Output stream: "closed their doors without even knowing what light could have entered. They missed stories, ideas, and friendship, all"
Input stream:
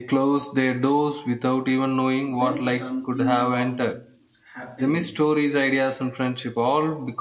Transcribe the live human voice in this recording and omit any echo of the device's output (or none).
when something wrong is happening.